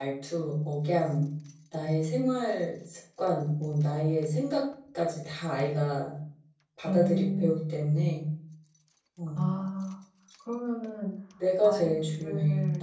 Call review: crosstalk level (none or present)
present